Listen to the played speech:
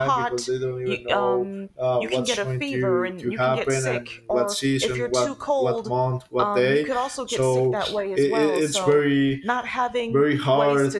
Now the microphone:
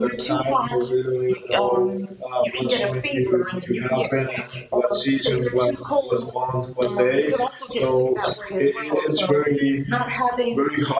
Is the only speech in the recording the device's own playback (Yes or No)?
Yes